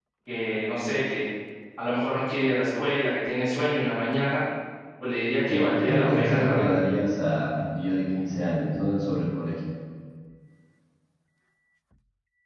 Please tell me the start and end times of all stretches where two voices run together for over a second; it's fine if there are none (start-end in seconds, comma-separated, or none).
5.5-6.7